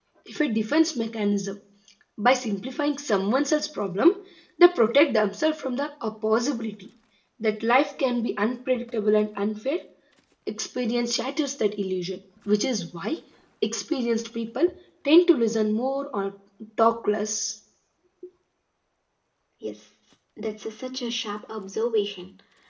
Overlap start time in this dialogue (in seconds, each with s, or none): none